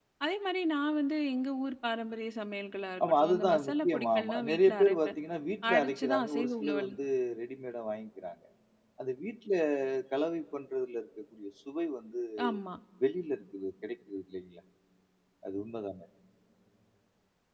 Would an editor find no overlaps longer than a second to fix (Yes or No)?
No